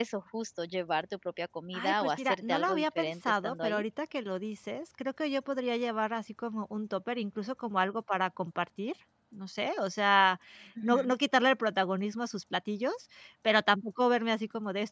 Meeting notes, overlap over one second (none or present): present